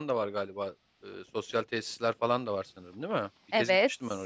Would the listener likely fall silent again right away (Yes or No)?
No